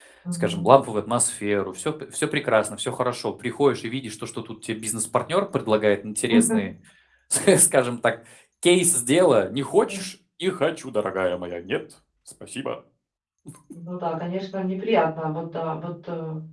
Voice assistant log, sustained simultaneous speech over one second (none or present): none